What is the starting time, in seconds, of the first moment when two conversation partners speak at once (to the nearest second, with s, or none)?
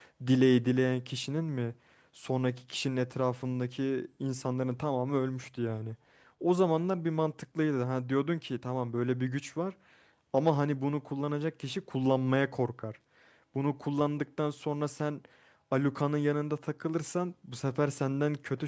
none